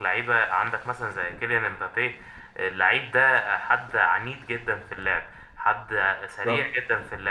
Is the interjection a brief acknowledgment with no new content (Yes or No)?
Yes